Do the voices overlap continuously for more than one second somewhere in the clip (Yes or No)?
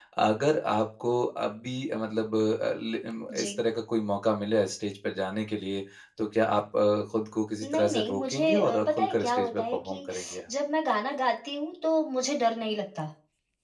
Yes